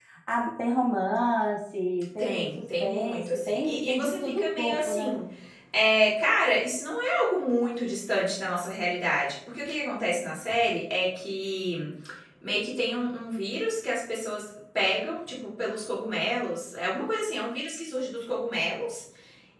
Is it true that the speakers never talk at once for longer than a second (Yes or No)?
No